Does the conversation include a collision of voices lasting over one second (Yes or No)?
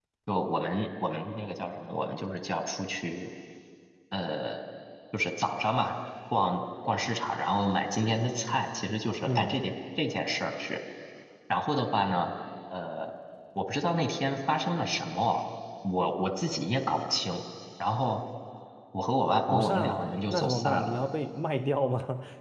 Yes